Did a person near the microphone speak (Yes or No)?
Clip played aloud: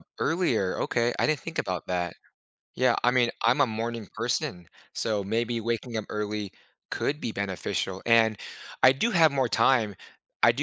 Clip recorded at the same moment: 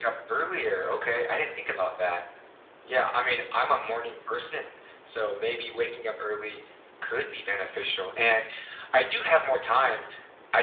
No